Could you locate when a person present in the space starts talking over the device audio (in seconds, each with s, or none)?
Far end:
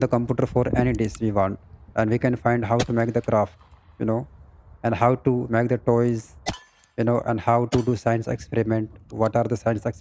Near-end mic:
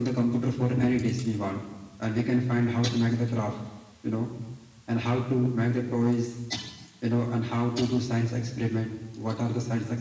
none